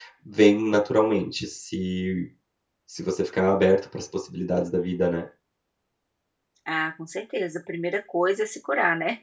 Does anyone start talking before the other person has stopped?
No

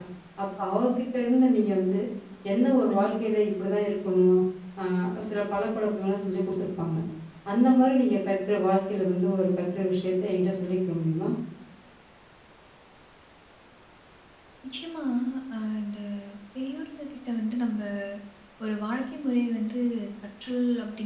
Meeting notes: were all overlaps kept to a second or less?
Yes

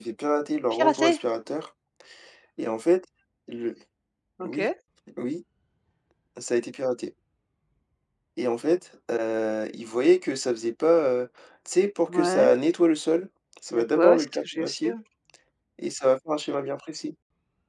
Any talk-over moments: Yes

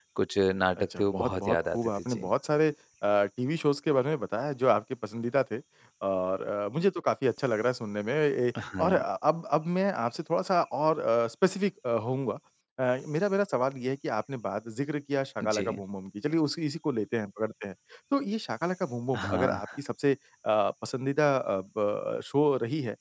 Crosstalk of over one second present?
Yes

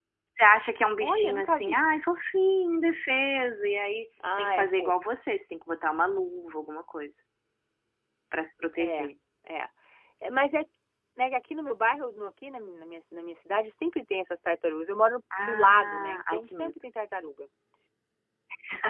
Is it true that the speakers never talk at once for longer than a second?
No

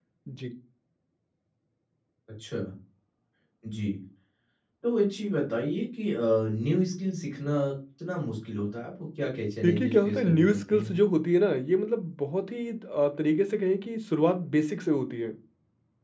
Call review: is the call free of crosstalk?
No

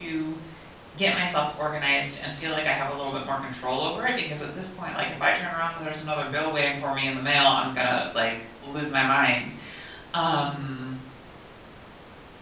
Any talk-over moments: No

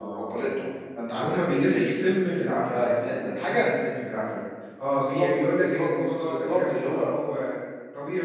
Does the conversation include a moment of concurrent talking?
Yes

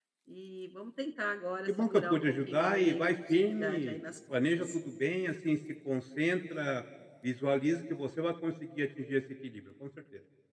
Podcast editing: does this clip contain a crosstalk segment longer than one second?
Yes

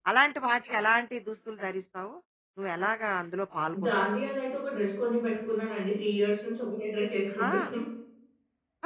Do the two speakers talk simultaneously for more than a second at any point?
No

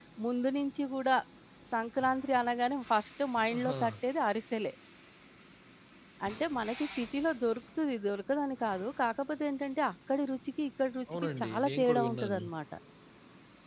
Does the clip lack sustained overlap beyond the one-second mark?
No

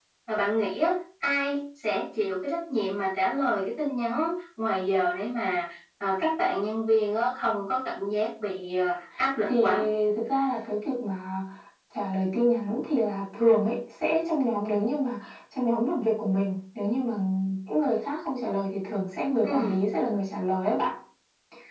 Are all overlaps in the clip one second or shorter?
Yes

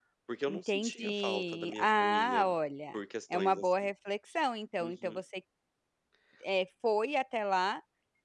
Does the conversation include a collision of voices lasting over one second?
Yes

